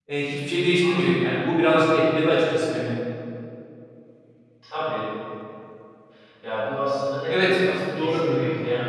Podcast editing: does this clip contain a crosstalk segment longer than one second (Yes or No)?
Yes